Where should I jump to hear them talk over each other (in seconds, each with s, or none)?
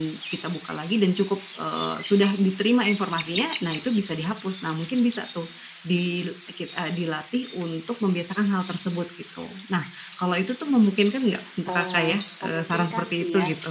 11.7 s